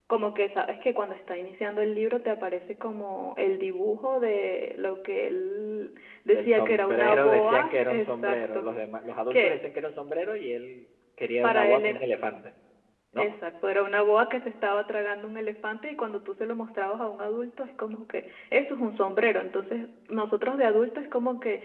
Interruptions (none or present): present